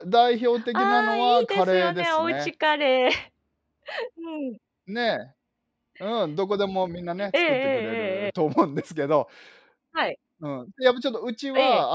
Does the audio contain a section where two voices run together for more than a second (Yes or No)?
Yes